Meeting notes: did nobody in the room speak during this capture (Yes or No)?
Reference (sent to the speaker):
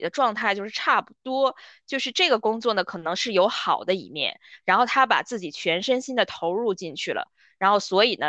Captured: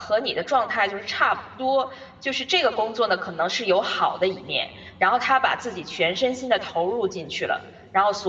Yes